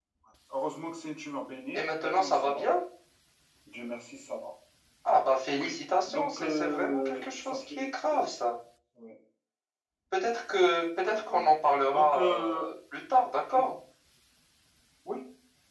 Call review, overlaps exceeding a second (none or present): present